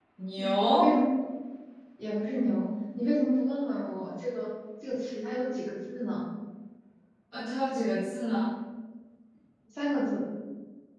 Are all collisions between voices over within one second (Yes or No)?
Yes